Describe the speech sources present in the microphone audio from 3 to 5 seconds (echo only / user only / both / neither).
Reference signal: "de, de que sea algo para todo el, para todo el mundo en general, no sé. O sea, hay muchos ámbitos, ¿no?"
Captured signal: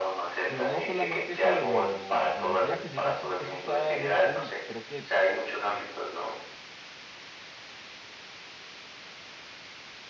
both